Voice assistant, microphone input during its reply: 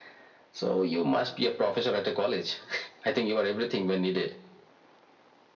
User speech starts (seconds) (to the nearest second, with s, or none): none